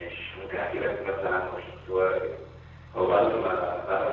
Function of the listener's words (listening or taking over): listening